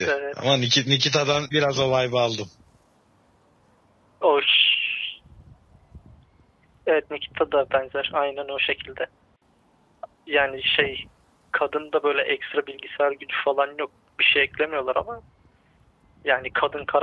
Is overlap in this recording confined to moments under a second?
Yes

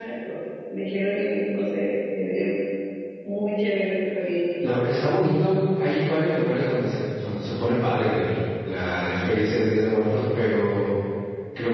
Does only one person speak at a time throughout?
Yes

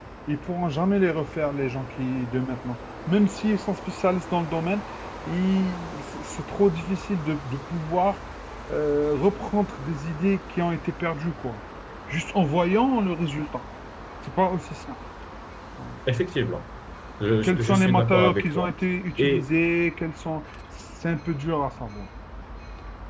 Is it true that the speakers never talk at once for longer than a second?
No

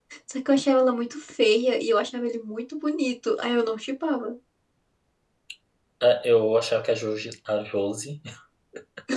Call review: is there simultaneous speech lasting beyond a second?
No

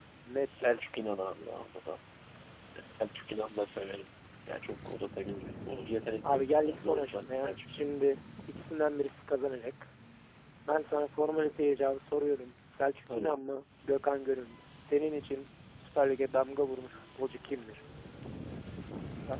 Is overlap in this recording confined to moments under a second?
No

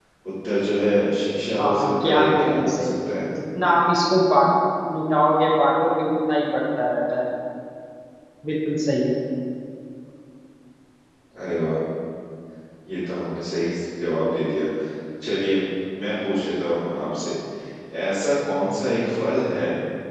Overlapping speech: Yes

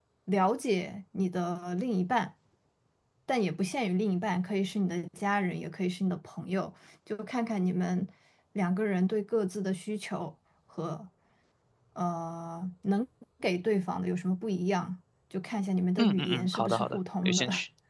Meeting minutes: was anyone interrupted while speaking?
Yes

